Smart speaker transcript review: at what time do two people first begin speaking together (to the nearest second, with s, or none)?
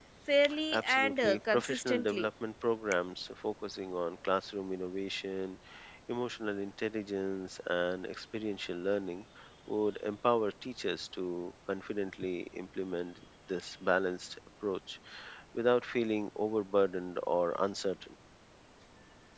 1 s